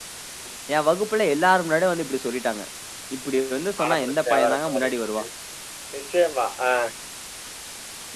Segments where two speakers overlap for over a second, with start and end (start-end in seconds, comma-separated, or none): 3.8-5.2